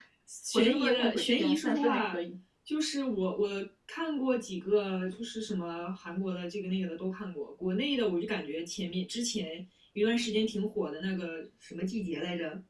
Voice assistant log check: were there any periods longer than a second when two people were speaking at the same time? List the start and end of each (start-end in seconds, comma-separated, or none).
0.5-2.2